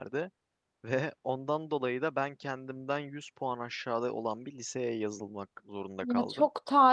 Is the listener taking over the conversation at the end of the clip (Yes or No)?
Yes